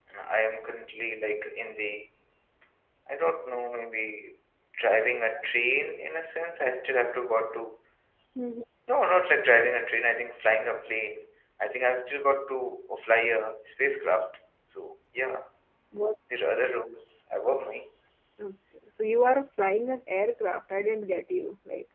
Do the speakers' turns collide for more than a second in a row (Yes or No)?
No